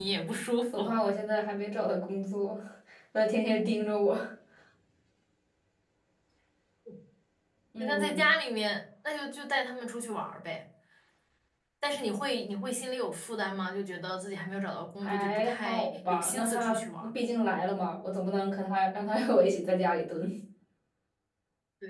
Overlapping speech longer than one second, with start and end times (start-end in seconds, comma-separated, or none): 15.0-16.8